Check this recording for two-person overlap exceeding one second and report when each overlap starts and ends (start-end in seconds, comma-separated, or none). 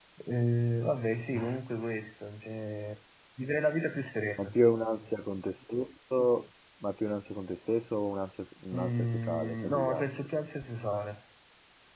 8.8-10.1